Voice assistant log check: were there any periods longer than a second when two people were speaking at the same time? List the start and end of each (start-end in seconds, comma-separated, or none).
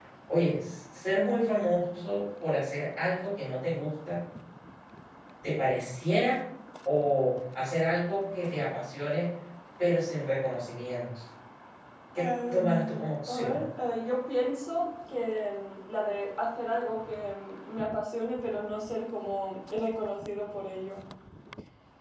12.2-13.6